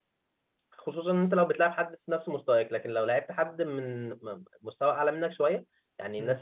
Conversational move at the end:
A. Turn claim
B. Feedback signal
B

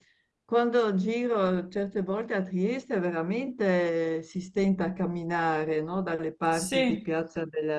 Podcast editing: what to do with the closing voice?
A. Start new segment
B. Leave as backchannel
B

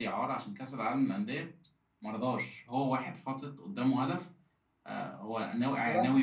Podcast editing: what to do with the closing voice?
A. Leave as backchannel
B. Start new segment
A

